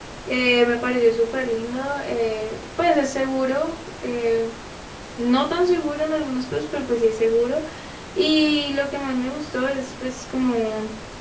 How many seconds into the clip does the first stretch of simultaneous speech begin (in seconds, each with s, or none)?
none